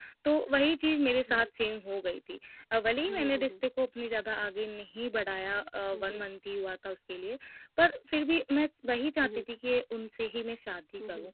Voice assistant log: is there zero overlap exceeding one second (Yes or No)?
Yes